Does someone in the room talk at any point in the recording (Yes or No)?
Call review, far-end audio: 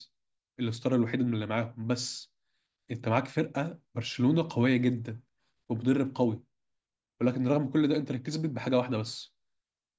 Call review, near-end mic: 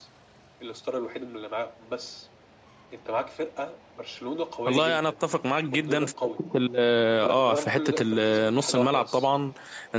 Yes